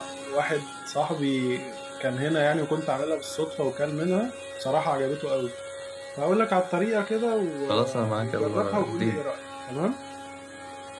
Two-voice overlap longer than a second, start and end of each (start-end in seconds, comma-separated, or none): 7.7-9.2